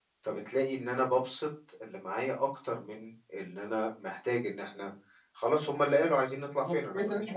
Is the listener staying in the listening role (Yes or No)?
No